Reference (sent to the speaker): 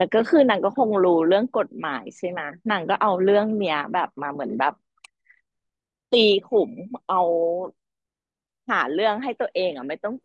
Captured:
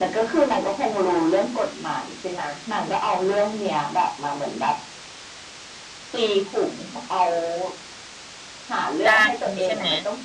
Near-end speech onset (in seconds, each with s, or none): 9.1 s